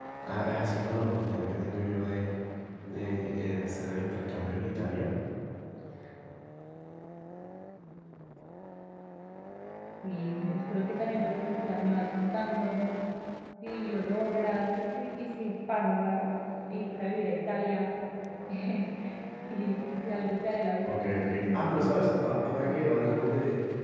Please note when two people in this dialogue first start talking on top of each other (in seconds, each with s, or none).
20.9 s